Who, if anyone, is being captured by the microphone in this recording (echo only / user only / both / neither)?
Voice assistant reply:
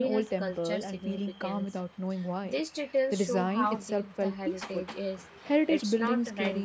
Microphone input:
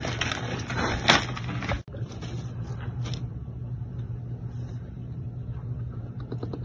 neither